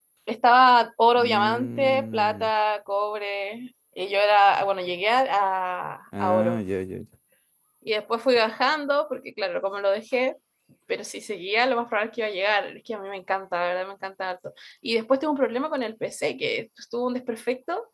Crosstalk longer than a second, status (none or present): present